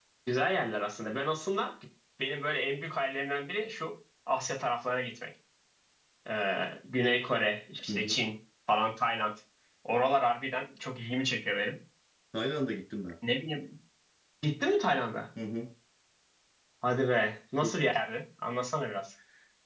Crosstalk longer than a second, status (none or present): none